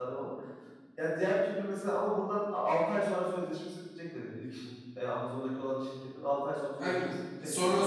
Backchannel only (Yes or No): No